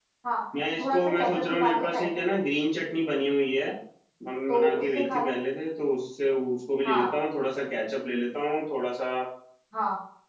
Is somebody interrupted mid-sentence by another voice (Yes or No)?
Yes